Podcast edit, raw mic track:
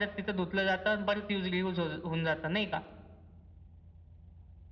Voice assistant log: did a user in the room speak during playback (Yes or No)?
No